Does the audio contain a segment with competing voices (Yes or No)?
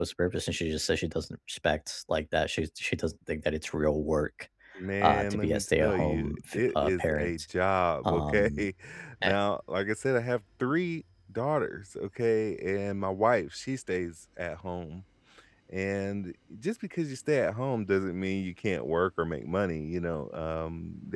Yes